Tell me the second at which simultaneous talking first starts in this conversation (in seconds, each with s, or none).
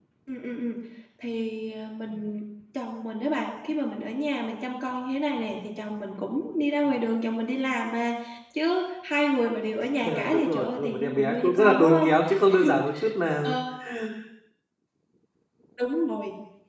10.0 s